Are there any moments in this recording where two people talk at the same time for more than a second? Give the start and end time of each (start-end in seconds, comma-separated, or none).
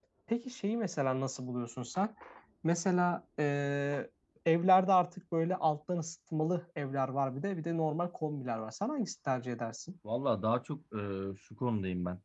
none